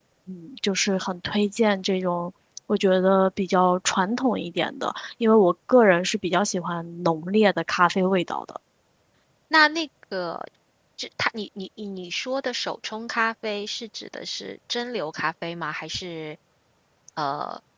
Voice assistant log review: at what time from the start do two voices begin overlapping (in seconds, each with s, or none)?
none